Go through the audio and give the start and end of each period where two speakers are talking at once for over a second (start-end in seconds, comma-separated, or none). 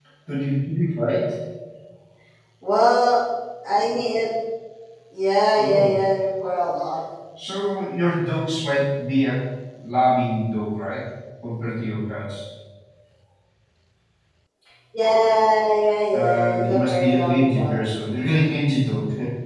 16.1-17.8